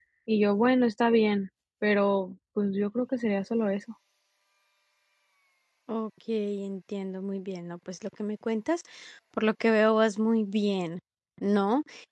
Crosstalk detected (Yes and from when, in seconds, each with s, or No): No